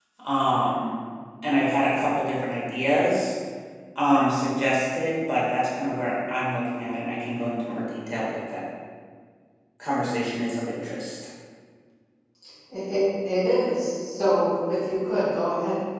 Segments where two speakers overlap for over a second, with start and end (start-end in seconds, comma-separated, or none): none